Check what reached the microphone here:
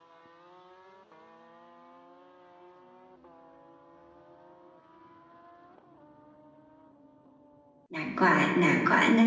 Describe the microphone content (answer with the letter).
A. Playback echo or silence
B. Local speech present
B